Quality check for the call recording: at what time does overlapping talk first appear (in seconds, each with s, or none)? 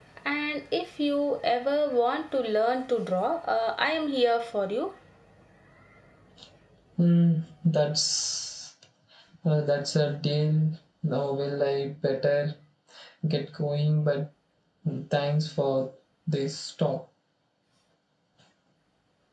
none